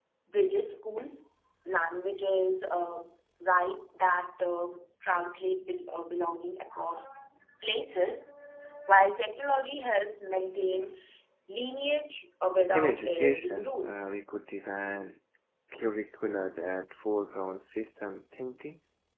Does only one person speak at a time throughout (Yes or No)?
No